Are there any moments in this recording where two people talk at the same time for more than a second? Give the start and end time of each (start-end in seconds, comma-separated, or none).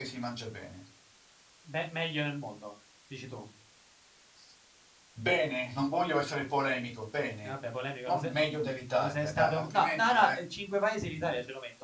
9.0-10.4